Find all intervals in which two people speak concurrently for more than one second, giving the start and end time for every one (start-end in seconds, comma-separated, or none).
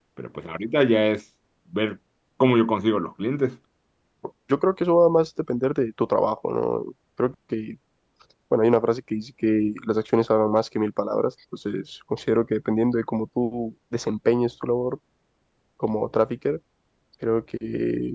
none